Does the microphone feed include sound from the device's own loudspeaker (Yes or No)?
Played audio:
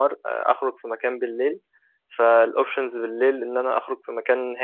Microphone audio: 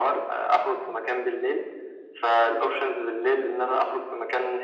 Yes